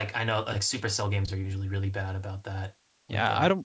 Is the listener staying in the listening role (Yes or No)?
No